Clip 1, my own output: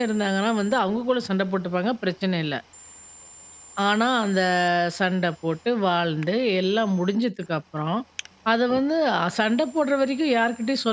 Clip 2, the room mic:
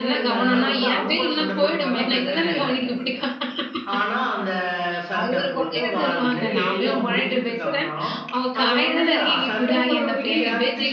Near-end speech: present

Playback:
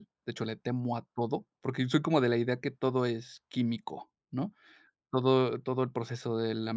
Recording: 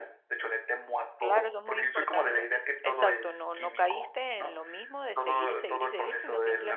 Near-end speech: present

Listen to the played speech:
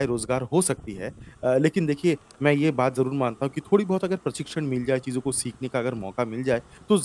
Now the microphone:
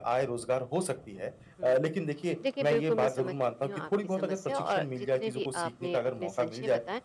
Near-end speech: present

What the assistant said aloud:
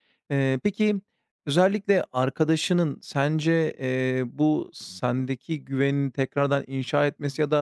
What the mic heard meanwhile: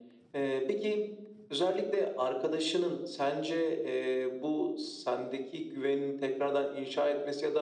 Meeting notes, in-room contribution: none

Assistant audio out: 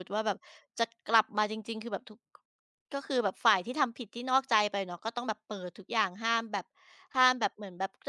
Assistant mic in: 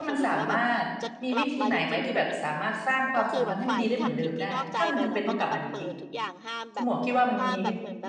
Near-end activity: present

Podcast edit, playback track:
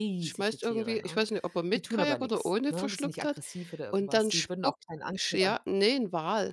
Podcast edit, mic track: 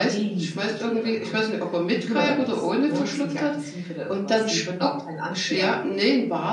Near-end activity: none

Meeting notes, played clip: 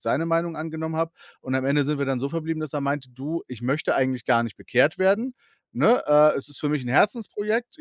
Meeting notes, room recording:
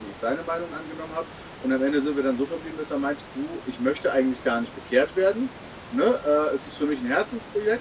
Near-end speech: none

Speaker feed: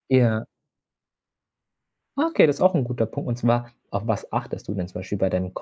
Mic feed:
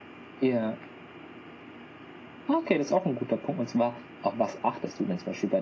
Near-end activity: none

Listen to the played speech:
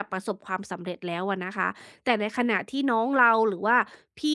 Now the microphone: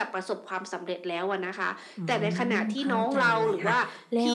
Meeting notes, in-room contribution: present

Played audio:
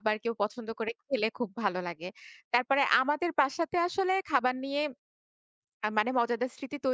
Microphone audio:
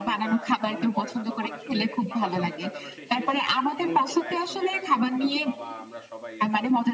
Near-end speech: present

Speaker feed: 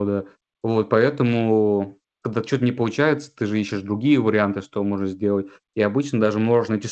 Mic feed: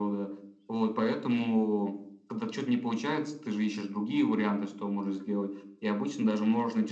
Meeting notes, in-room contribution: none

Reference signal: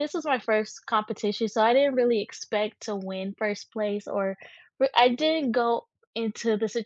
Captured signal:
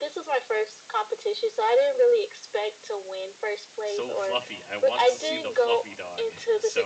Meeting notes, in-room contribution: present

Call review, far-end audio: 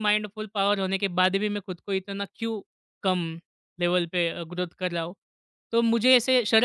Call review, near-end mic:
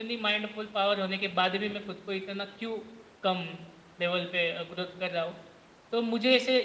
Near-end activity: none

